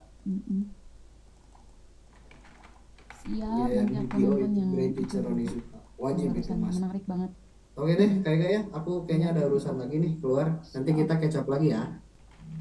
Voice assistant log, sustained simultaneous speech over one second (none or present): present